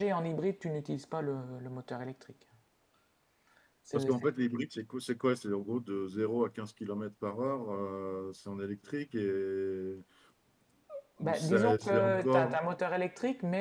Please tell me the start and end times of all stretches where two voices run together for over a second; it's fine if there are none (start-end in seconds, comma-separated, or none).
11.2-12.6